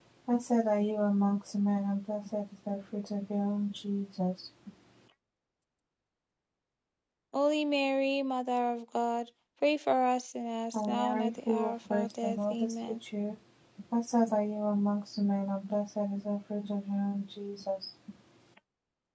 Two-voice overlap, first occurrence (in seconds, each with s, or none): 10.7 s